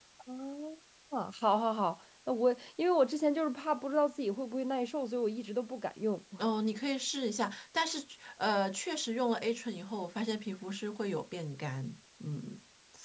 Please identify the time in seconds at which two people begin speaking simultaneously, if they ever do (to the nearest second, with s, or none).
none